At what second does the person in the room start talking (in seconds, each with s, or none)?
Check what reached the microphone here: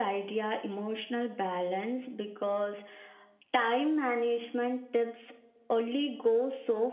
none